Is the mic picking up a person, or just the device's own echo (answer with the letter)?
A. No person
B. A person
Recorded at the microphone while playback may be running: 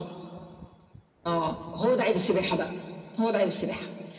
A